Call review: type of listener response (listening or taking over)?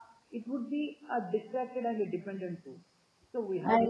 listening